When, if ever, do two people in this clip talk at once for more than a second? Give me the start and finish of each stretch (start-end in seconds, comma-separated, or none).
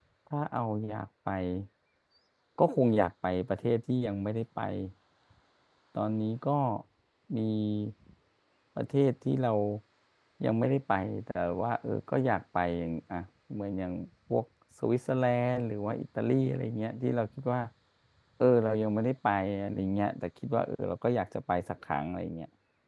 none